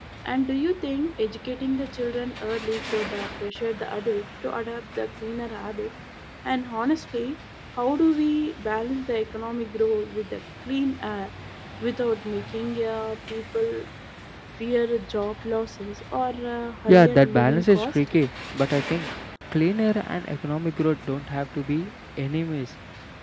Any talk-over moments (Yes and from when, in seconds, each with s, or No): Yes, from 16.9 s